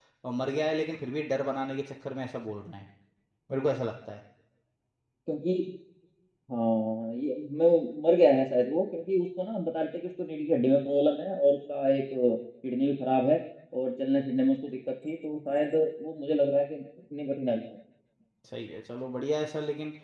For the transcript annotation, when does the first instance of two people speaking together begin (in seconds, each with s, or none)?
none